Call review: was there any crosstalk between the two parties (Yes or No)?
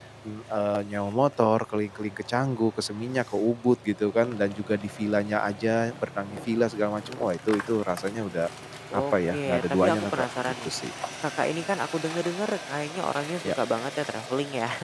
Yes